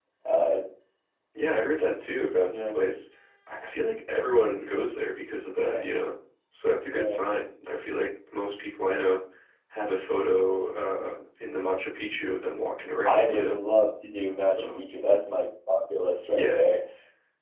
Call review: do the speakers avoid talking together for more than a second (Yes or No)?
Yes